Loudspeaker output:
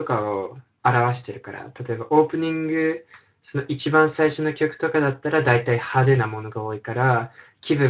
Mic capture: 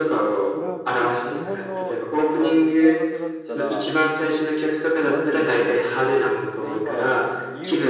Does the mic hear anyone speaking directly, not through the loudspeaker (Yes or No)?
Yes